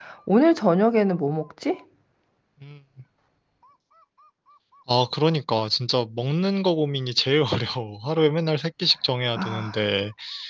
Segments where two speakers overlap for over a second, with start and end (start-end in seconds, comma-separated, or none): none